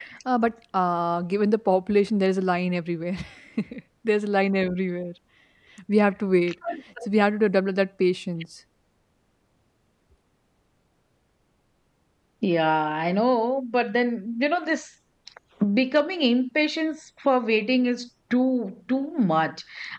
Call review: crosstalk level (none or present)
none